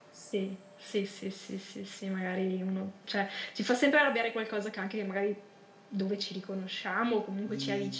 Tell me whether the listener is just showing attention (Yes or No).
No